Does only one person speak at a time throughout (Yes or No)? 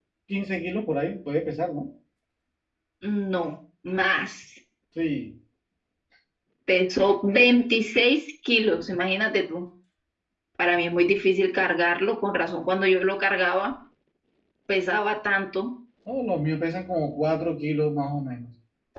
Yes